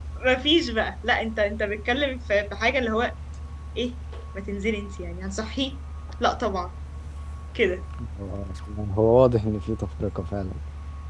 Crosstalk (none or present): none